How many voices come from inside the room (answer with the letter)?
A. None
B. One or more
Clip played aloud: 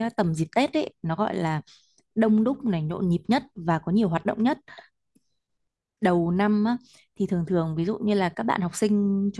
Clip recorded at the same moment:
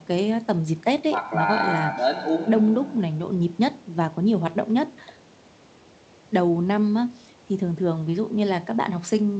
B